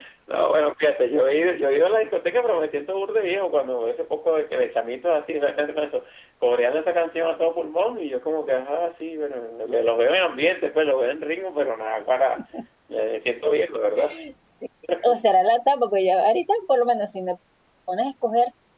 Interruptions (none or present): none